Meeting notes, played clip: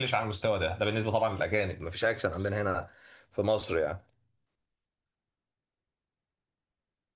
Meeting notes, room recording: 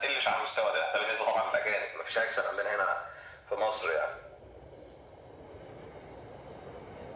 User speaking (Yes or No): No